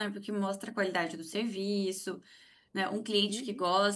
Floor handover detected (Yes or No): No